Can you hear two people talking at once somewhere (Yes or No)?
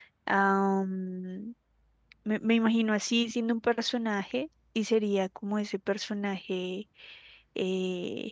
No